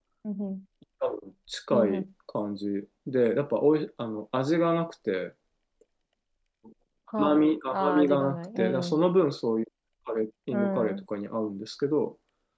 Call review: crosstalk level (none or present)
present